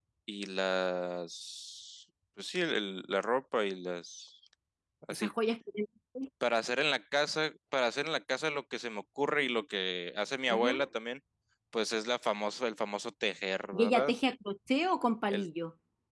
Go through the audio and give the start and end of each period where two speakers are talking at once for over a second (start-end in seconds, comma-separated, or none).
none